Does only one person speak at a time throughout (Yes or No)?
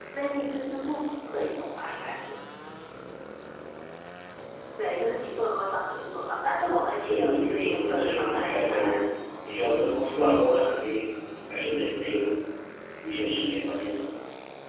No